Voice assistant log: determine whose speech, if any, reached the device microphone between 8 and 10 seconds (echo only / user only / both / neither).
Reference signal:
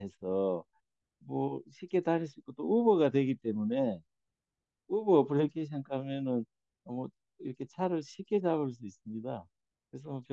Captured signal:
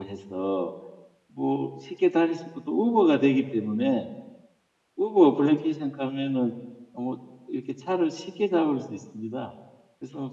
echo only